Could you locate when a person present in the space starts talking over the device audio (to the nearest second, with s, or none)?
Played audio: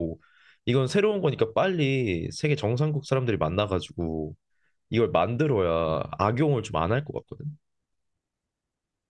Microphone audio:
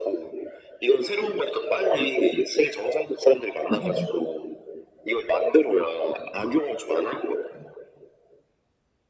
4 s